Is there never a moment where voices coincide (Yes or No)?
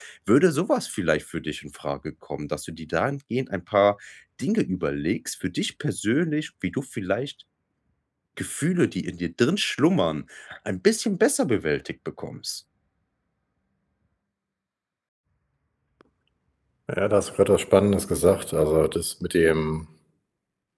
Yes